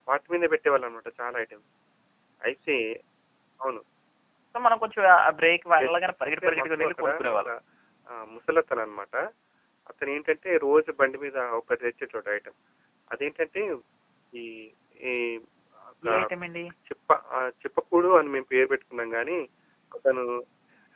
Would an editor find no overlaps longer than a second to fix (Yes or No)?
No